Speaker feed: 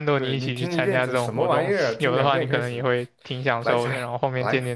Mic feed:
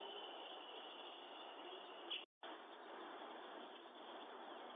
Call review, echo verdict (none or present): none